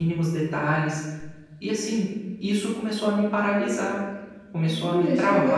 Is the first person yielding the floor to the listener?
Yes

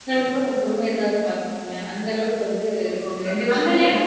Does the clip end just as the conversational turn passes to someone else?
Yes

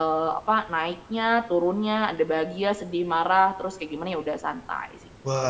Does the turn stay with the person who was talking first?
No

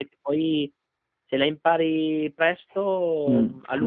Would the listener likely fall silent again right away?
No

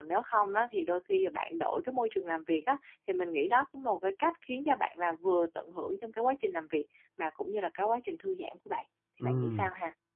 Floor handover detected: Yes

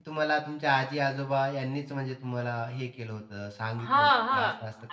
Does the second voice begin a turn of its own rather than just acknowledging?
Yes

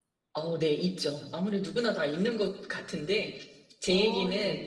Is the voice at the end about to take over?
No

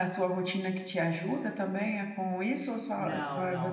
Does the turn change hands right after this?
Yes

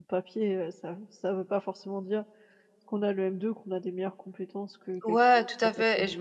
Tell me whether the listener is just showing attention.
No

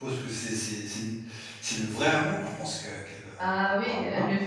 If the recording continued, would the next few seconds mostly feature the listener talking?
Yes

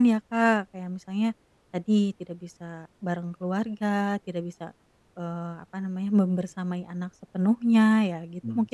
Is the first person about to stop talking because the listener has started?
Yes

